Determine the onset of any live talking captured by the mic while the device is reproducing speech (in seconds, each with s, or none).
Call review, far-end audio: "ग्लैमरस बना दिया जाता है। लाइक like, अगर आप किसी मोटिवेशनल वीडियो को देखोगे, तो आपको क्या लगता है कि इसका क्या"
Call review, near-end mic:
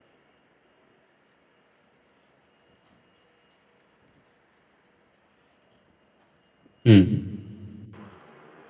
6.9 s